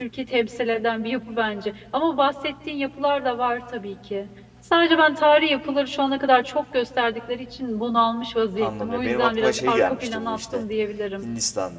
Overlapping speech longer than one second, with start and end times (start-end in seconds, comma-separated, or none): 8.6-10.7